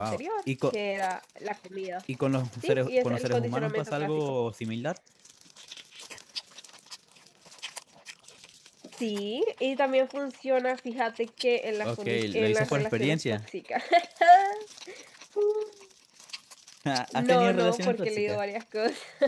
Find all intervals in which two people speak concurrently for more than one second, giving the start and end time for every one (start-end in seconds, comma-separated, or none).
2.6-4.3, 11.8-13.4, 17.1-18.4